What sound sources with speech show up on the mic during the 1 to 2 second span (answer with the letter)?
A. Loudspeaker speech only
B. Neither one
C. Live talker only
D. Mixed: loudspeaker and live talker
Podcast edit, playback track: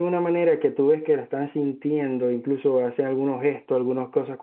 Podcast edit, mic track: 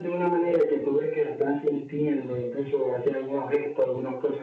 A